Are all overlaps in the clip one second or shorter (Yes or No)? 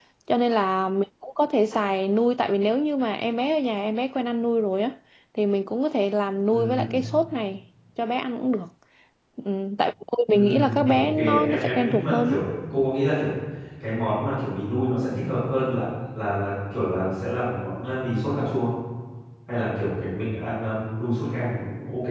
No